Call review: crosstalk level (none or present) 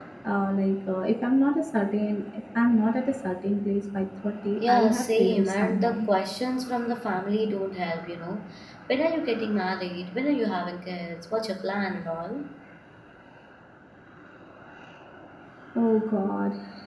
present